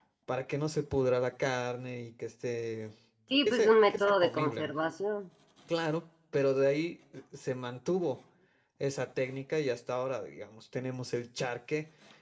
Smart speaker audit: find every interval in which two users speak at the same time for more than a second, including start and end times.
3.5-4.8

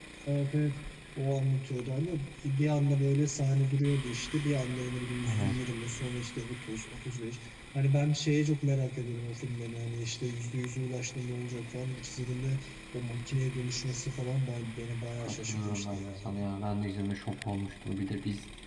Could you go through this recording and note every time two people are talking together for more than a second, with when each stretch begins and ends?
15.2-16.5

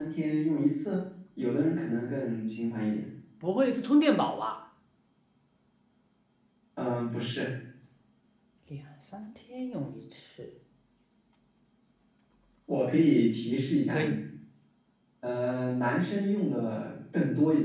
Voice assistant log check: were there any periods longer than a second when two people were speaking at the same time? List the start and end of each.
none

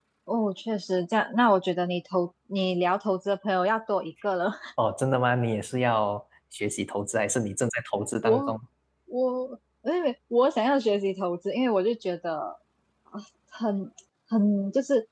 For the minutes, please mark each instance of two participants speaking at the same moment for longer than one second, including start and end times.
none

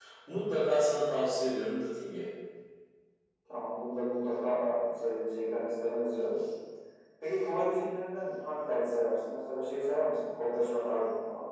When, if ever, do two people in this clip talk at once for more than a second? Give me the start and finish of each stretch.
none

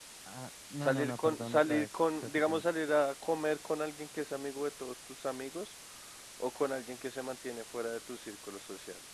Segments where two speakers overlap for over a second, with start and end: 0.8-2.7

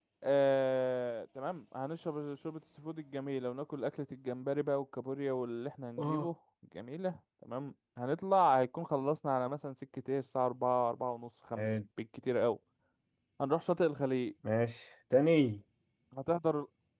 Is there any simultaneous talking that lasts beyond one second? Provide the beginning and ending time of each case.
none

